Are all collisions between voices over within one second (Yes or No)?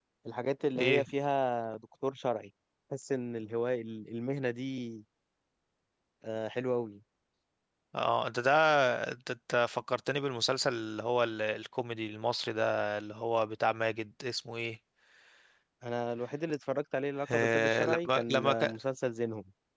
No